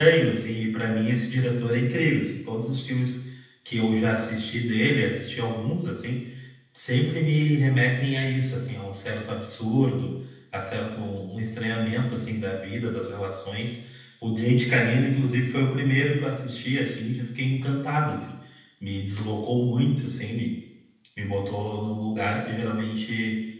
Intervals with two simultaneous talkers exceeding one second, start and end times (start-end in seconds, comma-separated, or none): none